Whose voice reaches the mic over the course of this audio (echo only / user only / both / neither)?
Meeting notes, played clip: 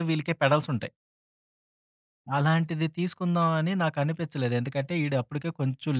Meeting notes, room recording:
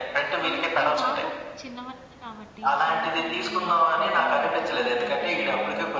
both